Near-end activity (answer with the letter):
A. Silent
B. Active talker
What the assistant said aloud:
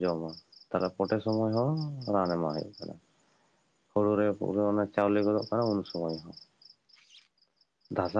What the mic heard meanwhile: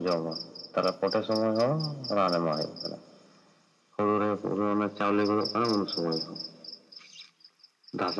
A